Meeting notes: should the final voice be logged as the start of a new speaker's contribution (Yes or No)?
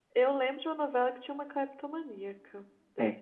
Yes